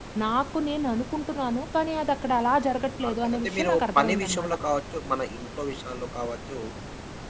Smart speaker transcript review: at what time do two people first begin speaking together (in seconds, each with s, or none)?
3.0 s